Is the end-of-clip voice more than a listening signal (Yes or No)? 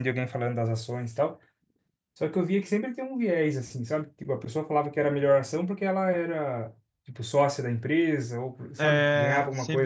Yes